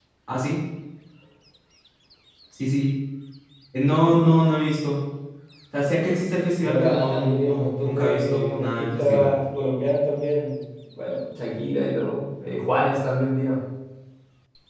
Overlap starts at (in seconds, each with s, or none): 6.6 s